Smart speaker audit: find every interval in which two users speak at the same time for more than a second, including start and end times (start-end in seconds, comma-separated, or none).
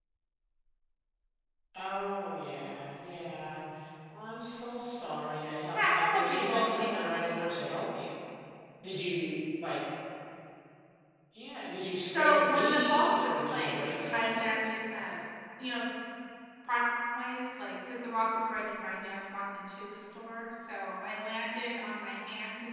5.7-7.5, 12.1-14.6